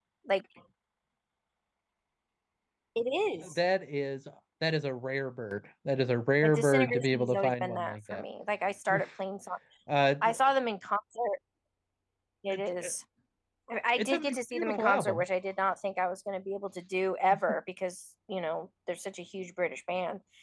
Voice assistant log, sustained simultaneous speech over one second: present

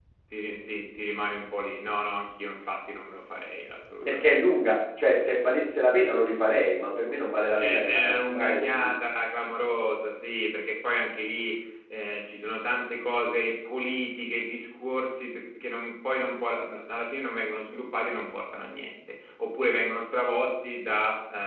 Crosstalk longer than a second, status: present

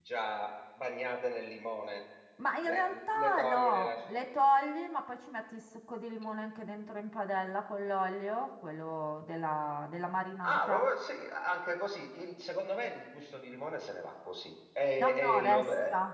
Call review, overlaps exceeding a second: present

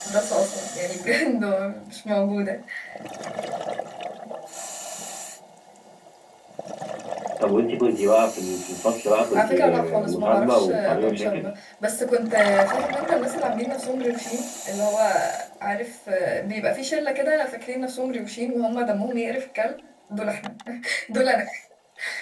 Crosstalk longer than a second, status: present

